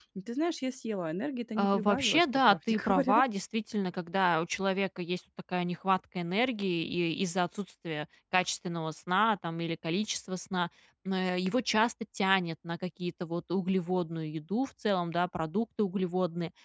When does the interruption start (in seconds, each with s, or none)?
1.6 s